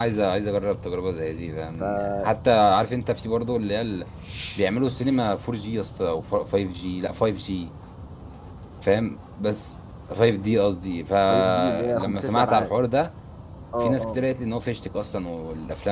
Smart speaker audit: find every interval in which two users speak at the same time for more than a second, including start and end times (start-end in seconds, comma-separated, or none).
11.3-12.7